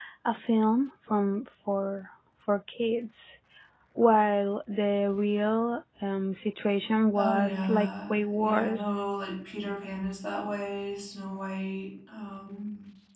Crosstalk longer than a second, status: present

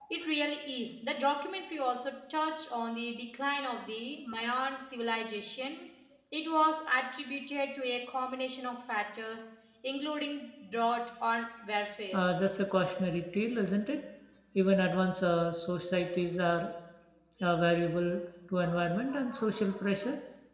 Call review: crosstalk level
none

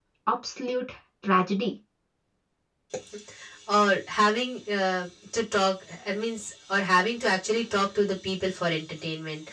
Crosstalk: none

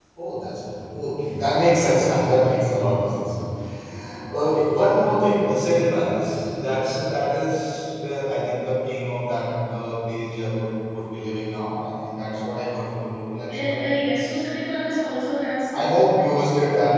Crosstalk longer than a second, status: none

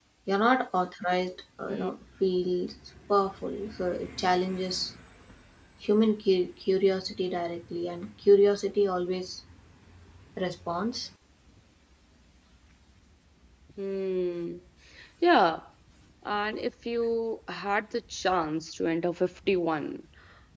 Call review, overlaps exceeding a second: none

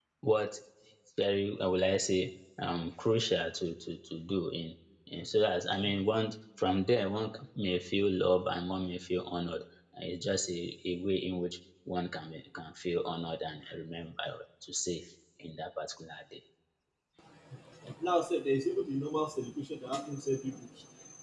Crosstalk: none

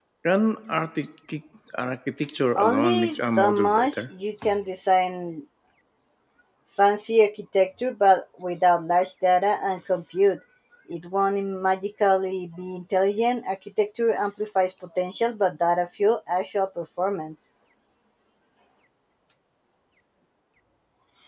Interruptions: present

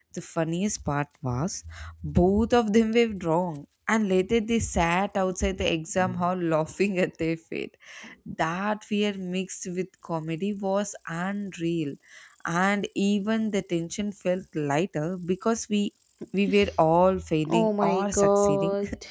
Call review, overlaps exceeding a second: present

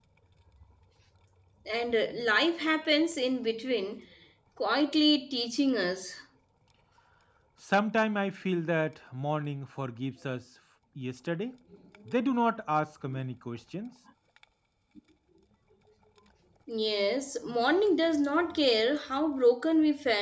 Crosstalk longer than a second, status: none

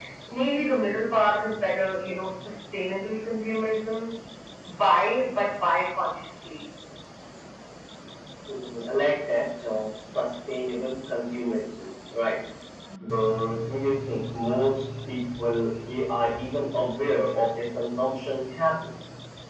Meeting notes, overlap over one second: none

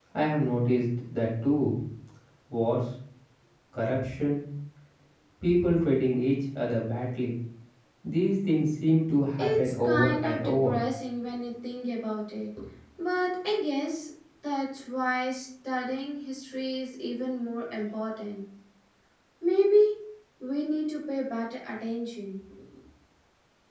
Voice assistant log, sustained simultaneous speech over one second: present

